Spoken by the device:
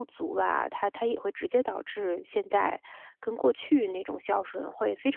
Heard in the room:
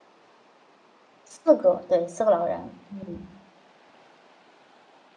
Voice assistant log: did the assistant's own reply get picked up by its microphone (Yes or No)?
No